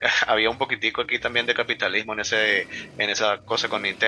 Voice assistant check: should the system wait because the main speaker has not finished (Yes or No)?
Yes